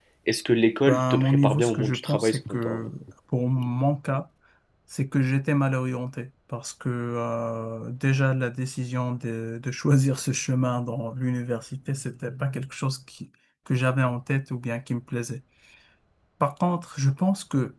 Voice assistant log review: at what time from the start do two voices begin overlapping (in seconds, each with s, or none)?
0.9 s